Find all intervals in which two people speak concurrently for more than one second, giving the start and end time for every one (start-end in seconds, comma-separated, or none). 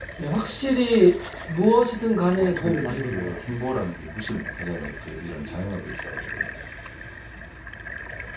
2.3-3.5